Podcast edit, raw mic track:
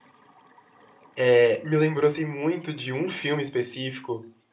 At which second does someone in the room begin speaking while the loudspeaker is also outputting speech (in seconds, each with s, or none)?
1.2 s